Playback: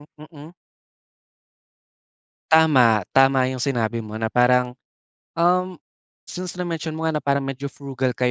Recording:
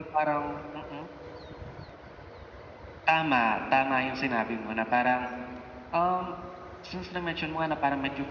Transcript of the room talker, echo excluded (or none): none